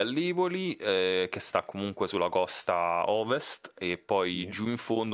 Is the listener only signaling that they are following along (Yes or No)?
Yes